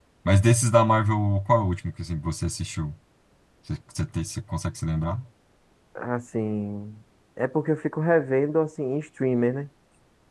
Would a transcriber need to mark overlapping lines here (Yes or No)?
No